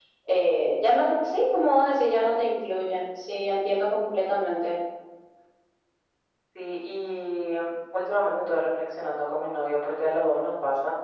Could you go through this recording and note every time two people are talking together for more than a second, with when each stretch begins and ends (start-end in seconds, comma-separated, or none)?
none